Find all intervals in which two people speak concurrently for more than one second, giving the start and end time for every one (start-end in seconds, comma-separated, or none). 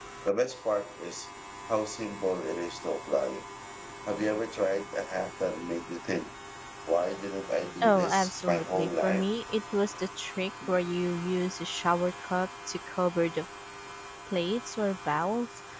7.8-9.3